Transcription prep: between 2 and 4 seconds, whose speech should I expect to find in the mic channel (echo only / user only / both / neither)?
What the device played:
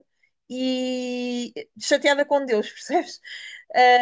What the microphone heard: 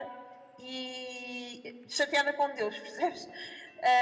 echo only